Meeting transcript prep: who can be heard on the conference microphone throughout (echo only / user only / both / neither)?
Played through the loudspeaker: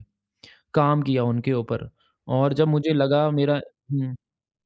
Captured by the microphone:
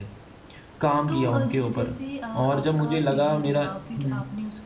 both